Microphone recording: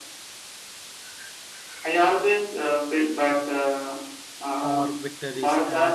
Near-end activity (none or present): present